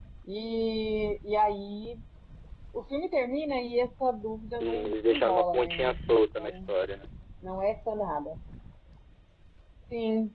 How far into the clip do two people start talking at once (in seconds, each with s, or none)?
4.6 s